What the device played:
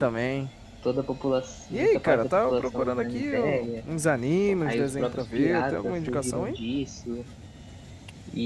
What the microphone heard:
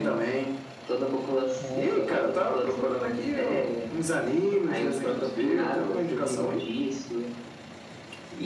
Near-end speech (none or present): present